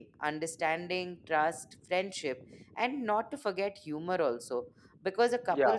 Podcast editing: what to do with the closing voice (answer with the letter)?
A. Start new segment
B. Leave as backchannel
B